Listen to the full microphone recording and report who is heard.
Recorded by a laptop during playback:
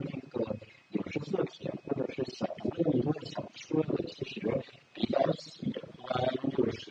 echo only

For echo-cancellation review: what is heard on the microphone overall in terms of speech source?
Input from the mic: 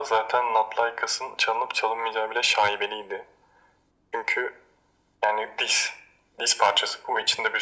echo only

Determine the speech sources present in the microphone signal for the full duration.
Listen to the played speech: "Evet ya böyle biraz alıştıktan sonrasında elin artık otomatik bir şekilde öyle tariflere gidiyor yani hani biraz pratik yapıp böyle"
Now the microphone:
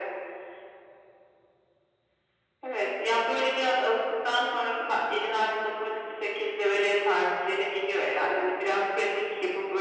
echo only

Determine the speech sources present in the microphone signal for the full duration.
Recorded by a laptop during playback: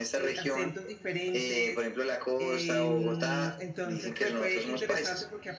both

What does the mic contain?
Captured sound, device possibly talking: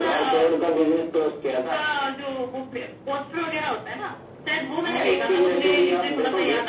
both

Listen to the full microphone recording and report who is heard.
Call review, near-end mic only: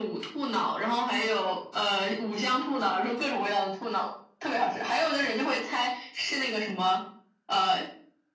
echo only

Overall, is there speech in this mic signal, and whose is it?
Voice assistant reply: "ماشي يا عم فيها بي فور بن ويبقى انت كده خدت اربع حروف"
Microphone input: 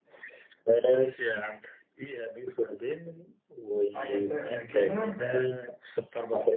both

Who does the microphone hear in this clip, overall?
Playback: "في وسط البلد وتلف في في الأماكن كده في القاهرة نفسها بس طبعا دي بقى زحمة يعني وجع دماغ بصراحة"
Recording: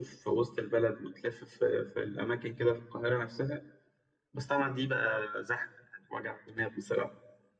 echo only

